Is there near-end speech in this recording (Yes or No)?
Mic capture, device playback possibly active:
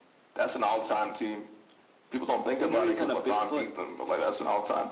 No